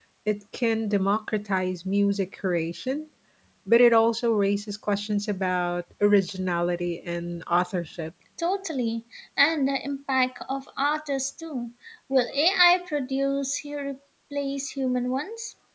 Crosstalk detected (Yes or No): No